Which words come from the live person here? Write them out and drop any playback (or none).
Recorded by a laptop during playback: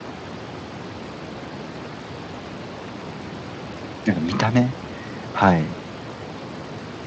なんか見た目はい。